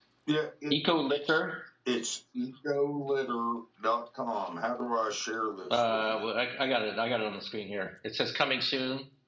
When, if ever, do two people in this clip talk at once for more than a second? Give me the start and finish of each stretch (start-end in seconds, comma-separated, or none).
none